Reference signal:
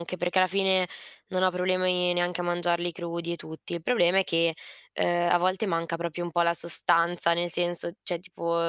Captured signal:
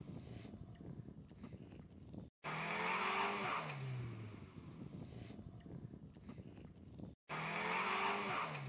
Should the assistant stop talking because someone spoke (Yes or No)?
No